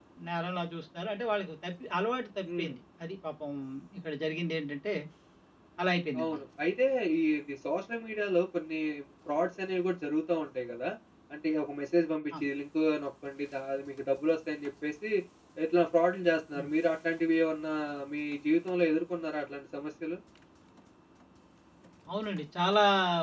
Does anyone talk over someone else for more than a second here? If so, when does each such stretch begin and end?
none

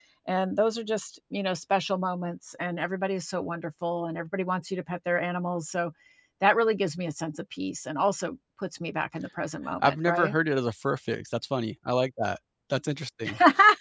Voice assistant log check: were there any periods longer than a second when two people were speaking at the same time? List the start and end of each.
none

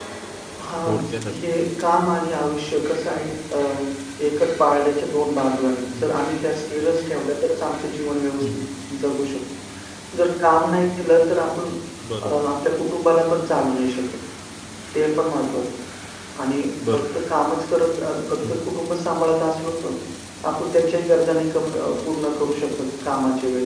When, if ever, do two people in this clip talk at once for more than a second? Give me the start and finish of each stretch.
none

